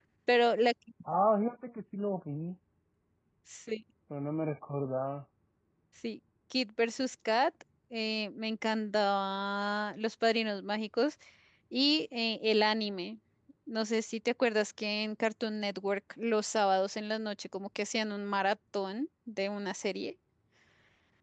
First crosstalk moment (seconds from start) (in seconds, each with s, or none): none